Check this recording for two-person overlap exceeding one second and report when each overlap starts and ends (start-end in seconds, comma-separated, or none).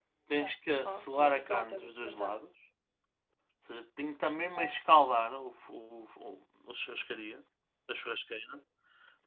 0.8-2.4